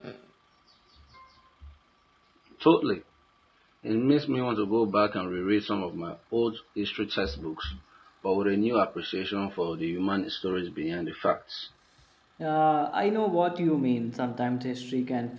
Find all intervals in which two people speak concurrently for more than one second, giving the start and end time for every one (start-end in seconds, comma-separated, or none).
none